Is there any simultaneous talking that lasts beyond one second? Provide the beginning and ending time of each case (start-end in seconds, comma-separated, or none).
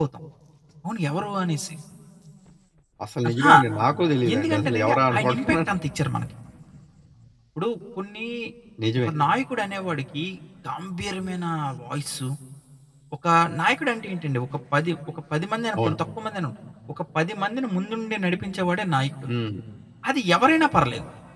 4.3-5.6